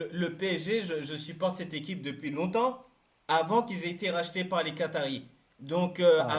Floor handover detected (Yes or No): No